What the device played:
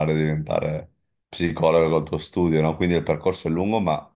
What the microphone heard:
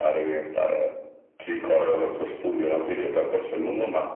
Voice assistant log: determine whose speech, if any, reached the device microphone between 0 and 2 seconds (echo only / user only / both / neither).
echo only